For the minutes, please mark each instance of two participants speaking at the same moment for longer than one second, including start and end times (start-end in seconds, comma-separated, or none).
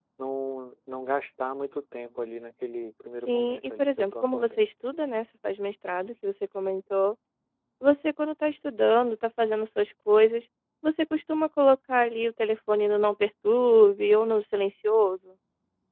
3.3-4.6